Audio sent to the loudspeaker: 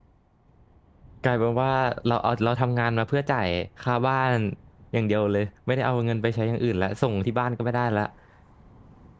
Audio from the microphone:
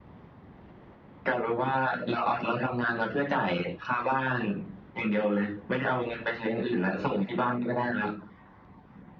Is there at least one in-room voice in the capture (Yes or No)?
No